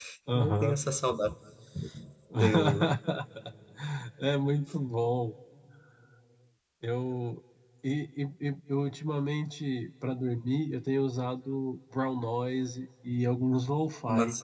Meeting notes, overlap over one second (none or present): none